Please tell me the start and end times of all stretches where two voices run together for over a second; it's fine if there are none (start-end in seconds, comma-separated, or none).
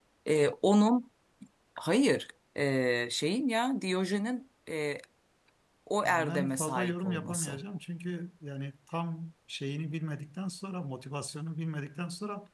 6.0-7.6